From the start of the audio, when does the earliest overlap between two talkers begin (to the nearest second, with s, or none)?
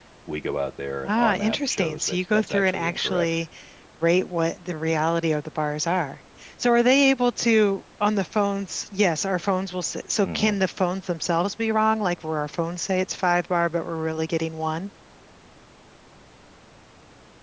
1 s